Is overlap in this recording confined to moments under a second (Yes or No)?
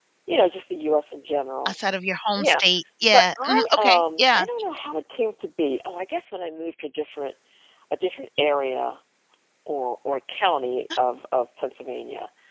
No